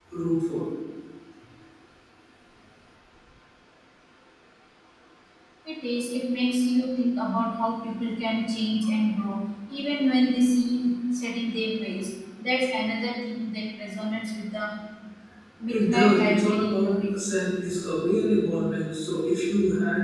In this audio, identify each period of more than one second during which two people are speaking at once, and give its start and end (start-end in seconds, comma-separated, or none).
15.7-17.1